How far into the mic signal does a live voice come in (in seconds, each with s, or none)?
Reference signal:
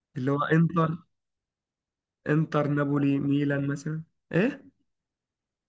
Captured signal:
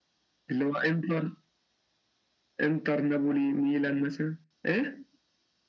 none